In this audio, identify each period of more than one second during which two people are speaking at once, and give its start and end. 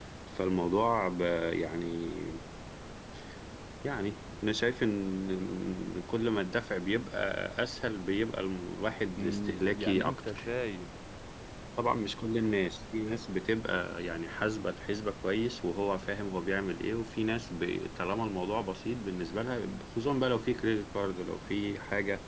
9.2-10.4

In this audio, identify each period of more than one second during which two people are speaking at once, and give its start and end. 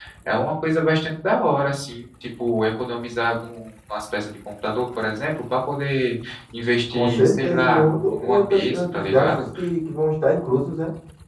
6.9-9.4

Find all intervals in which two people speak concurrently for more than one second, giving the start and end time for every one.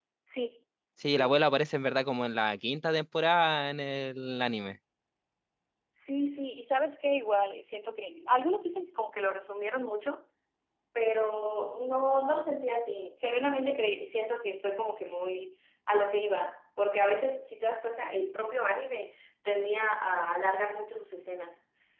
none

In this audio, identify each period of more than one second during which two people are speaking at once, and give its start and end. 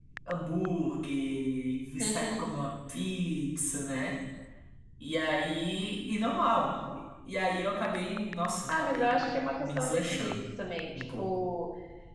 8.7-10.4

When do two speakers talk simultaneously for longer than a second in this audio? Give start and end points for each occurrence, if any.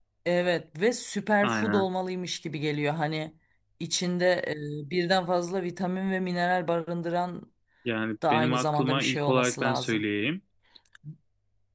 8.3-10.0

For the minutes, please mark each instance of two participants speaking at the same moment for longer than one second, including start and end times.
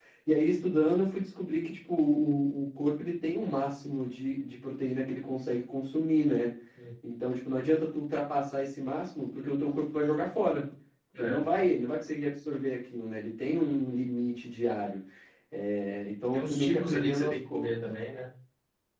16.3-17.7

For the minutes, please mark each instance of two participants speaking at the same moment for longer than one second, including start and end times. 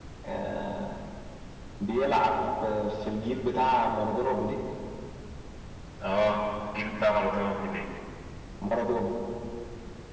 none

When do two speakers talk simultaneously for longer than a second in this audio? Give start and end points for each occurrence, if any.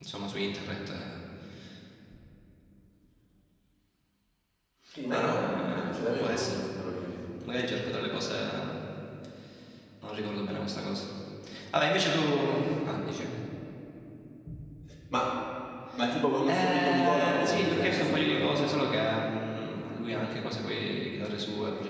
5.1-6.6, 16.5-18.6

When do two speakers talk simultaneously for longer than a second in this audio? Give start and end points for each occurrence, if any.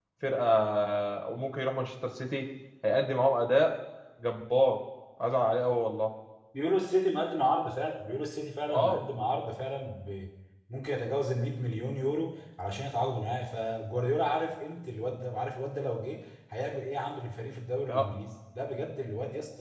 none

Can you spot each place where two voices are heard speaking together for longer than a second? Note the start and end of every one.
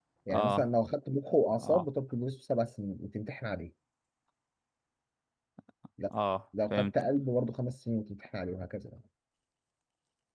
none

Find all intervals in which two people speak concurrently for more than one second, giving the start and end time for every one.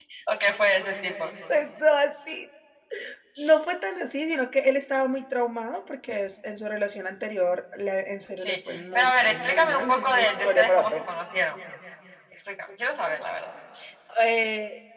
8.4-11.0

